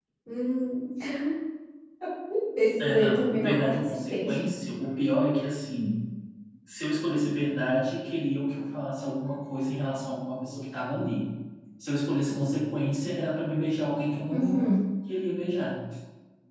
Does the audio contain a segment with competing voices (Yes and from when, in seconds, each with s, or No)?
Yes, from 2.8 s